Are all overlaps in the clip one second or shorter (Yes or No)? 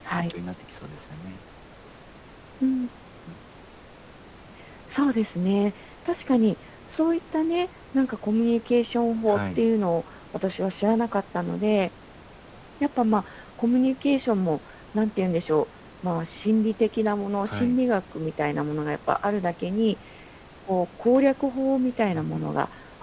Yes